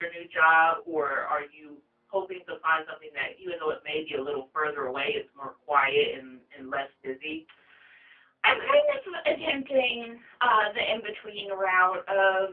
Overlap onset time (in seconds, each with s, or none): none